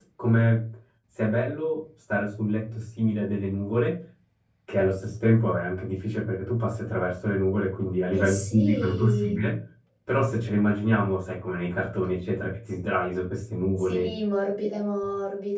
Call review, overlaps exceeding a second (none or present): present